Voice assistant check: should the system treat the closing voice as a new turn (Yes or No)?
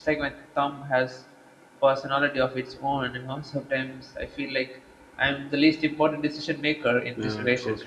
Yes